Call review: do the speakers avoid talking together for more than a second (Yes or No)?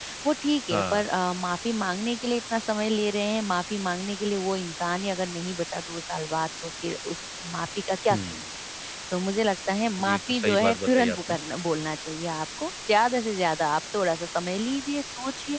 No